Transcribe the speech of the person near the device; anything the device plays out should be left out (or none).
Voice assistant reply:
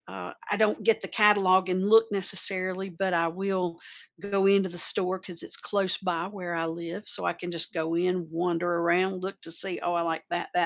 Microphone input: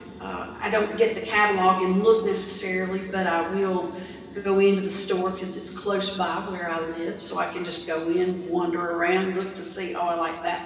none